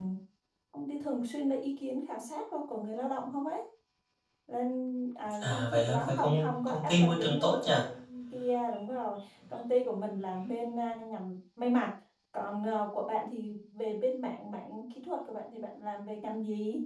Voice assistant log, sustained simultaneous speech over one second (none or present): present